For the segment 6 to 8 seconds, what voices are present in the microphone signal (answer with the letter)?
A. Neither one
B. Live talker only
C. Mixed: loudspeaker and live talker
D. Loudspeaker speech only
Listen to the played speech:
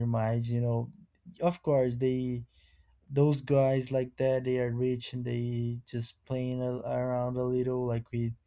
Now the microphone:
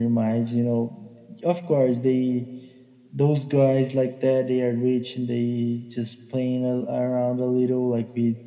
D